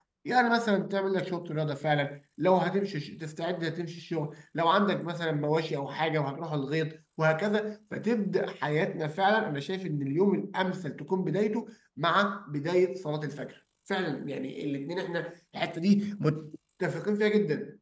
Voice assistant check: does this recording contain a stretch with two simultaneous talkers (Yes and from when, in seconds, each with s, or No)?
No